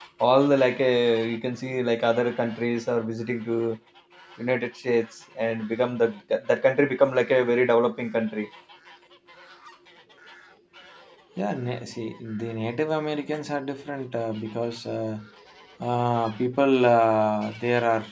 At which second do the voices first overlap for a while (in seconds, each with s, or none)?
none